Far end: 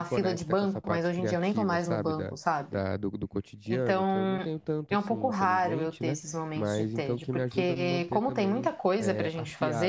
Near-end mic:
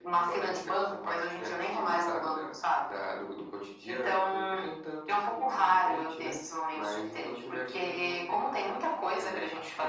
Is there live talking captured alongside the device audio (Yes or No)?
No